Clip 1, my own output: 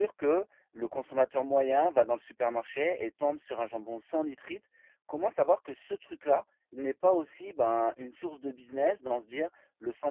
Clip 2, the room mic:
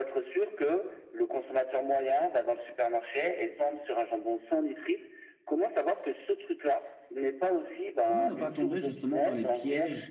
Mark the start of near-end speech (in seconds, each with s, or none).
8.0 s